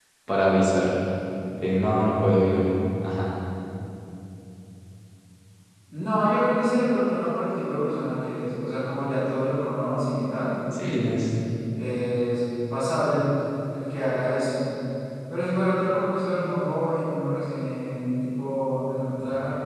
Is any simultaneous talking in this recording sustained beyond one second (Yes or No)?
No